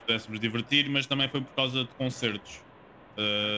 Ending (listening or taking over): listening